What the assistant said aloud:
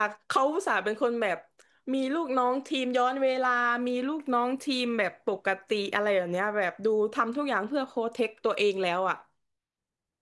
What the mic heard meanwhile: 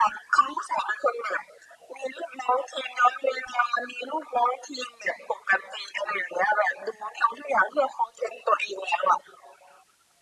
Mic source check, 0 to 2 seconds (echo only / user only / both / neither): echo only